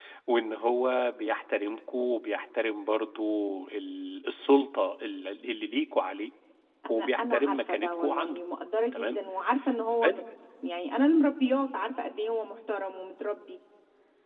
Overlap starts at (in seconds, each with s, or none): 6.9 s